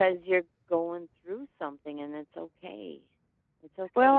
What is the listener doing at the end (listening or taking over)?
taking over